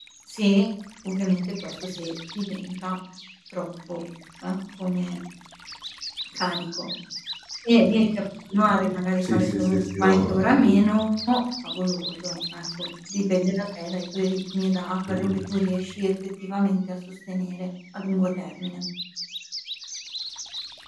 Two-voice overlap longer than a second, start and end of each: 9.2-10.8

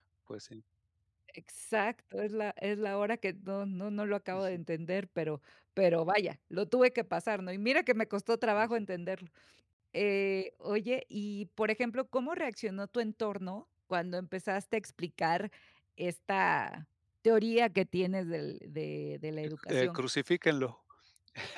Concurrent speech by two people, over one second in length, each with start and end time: none

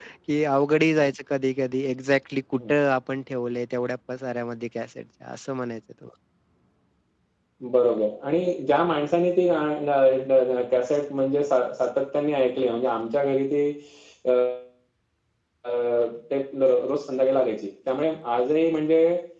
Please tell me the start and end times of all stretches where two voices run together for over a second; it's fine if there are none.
none

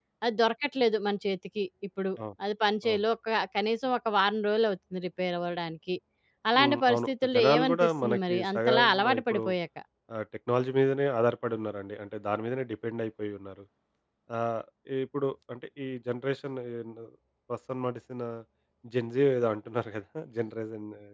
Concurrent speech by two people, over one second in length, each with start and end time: 6.6-9.4

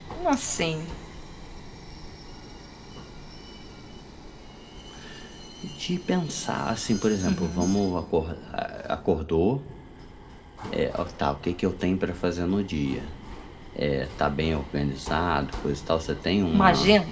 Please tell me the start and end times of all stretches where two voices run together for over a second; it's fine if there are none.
none

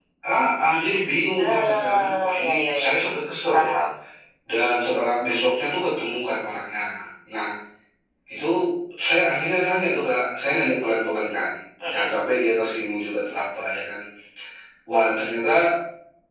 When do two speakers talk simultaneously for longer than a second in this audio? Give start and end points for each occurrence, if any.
1.4-2.9

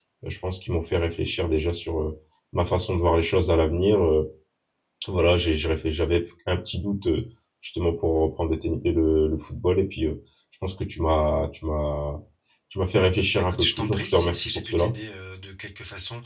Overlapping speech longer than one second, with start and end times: 13.3-14.9

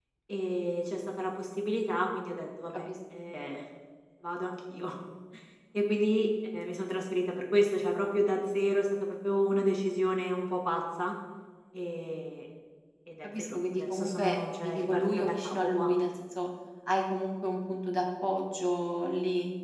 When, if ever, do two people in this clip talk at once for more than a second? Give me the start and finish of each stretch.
13.2-15.9

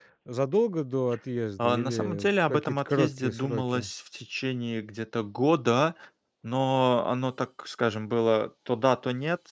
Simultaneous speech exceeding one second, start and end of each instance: 1.6-3.9

